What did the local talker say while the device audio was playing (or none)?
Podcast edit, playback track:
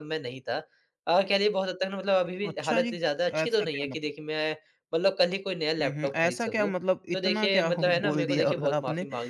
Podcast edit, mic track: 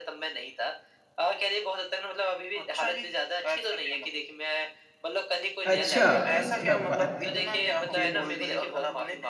अच्छा, क्या बात है! फिर?